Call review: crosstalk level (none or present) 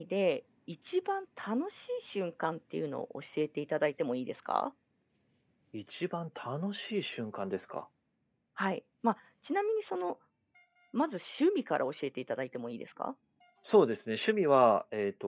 none